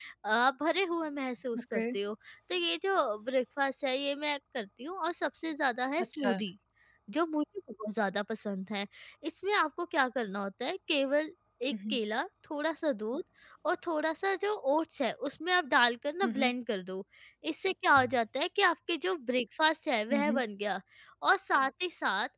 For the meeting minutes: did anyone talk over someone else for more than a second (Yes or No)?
No